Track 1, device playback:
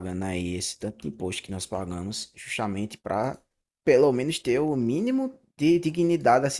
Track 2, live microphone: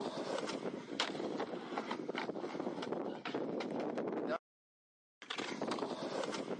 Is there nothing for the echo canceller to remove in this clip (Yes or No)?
Yes